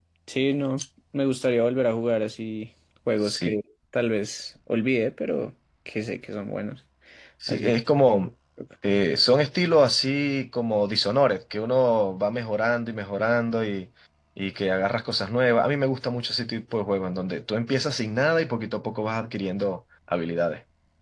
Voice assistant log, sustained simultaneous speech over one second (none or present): none